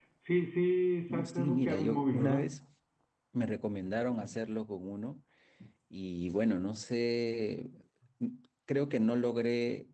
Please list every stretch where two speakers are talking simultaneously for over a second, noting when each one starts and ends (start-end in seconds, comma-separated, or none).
1.1-2.4